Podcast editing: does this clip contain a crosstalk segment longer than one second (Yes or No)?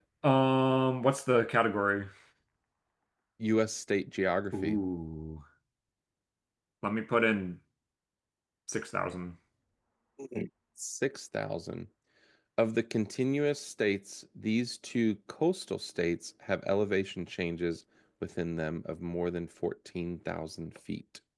No